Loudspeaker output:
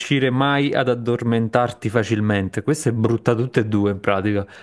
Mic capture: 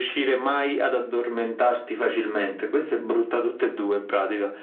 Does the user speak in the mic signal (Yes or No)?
No